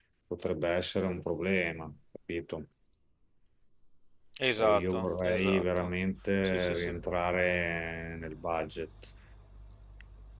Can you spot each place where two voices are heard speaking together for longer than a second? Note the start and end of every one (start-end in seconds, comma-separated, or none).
4.6-5.9